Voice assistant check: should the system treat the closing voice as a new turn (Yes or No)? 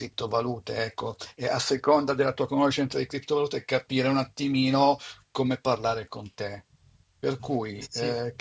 No